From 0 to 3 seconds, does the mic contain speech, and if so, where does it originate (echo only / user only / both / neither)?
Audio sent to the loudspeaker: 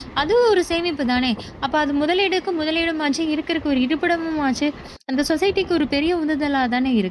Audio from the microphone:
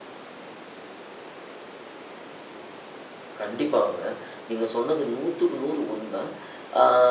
neither